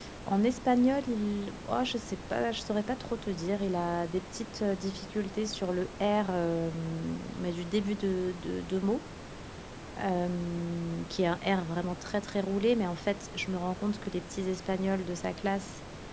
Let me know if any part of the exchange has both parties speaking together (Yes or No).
No